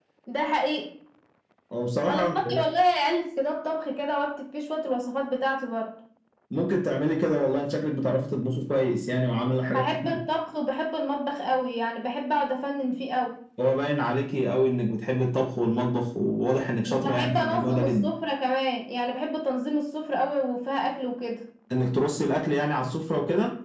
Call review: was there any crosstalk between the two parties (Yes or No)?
Yes